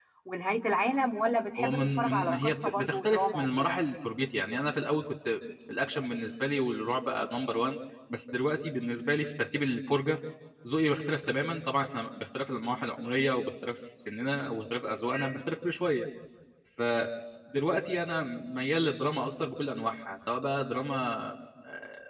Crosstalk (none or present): present